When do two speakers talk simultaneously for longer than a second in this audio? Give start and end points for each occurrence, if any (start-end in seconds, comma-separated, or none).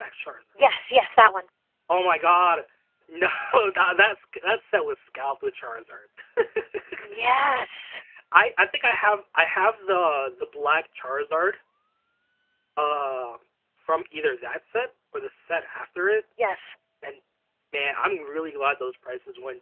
none